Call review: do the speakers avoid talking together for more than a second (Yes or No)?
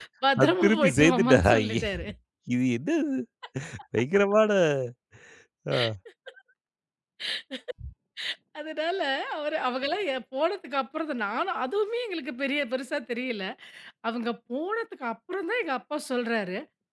No